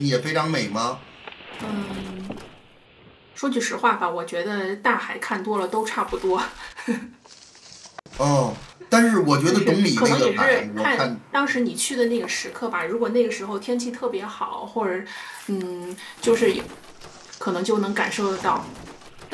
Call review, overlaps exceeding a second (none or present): present